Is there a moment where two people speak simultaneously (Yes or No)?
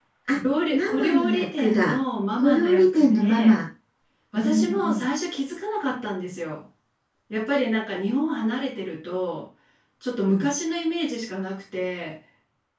Yes